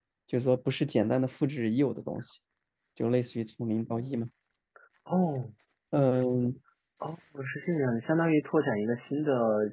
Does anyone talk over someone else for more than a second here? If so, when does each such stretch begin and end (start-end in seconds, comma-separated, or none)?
none